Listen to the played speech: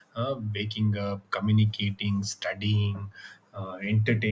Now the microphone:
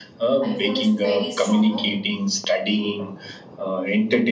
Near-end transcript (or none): iPhone is very stronger.